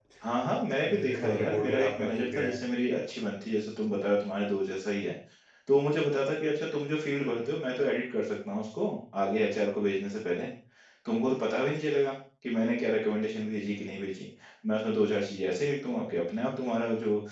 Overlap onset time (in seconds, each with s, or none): 0.9 s